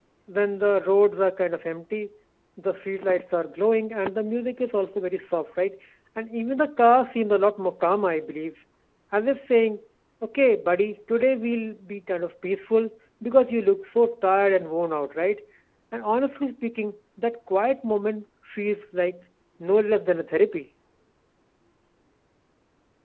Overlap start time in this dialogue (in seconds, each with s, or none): none